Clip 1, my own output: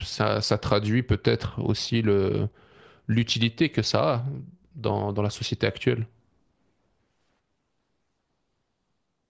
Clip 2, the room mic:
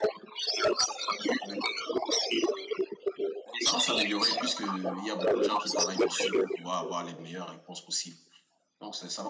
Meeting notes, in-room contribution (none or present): present